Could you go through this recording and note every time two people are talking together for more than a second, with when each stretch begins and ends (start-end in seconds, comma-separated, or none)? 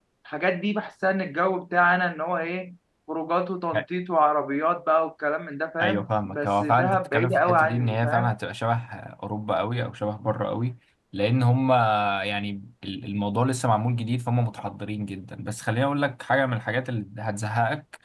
5.8-8.3